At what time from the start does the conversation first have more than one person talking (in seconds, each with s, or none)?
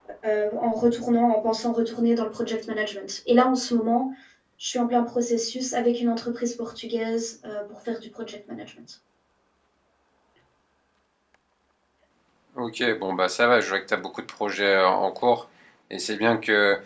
none